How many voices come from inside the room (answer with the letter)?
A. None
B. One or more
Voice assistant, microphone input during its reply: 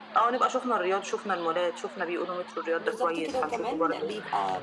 B